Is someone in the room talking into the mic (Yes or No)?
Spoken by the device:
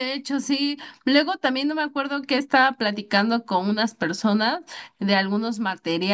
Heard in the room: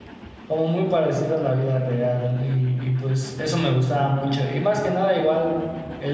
Yes